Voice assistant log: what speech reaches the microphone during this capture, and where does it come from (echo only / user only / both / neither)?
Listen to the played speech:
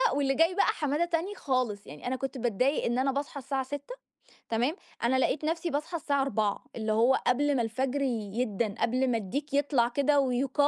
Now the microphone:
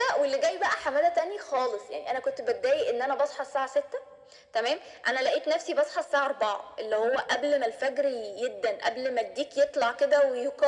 echo only